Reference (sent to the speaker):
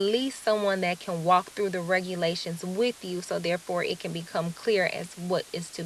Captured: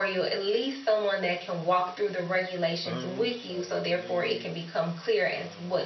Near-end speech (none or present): present